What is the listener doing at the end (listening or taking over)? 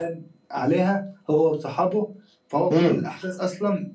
listening